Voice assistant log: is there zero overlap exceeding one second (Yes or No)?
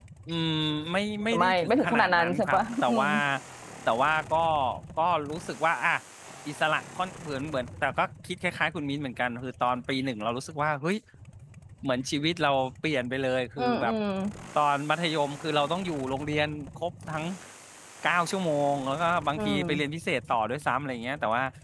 No